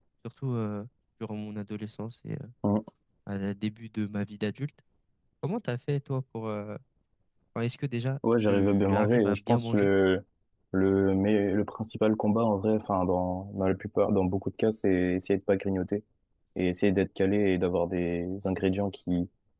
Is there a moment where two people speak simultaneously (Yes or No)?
Yes